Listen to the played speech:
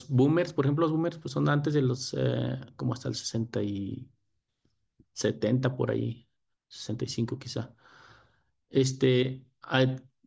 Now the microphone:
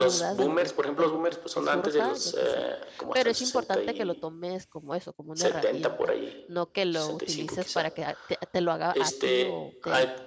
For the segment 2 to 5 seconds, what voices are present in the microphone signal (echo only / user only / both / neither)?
both